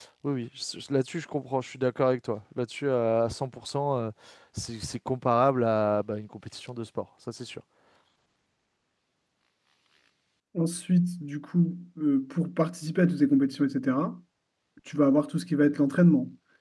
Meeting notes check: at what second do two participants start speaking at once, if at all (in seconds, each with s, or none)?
none